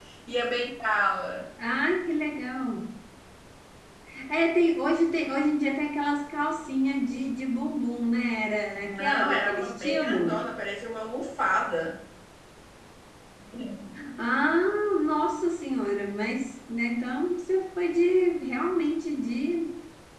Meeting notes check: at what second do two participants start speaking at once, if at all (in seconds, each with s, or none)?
8.8 s